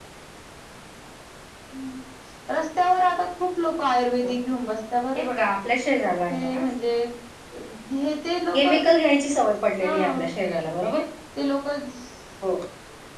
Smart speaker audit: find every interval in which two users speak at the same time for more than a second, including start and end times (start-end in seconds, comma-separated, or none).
none